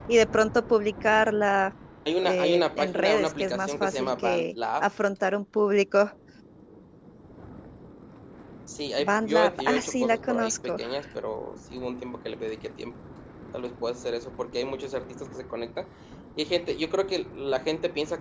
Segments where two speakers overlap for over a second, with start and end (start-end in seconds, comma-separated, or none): 2.2-4.8, 9.0-10.8